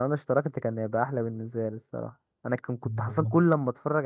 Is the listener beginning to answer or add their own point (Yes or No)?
No